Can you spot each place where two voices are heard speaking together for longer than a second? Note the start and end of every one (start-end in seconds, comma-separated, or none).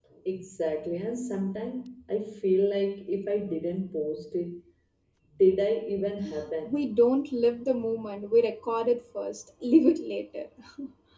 none